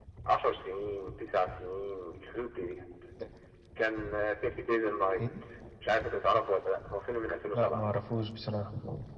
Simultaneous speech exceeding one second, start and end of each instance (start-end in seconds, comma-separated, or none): none